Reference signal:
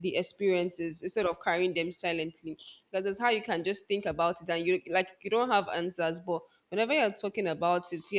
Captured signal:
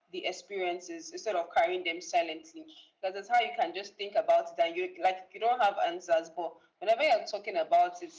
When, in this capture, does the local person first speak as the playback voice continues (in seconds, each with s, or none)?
none